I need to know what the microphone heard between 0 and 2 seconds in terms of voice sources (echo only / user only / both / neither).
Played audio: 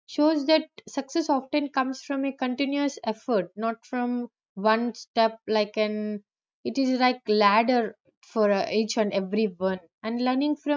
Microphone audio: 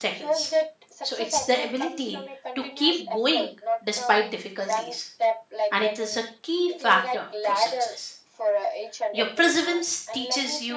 both